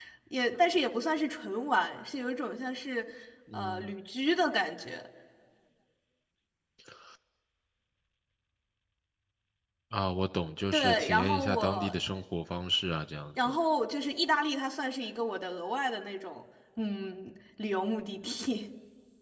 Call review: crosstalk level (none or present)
present